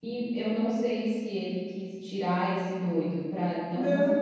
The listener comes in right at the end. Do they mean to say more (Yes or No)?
No